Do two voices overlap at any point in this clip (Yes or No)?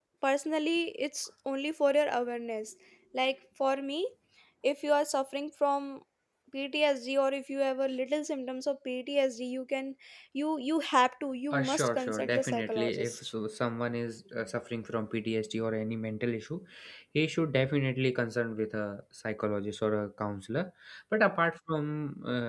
Yes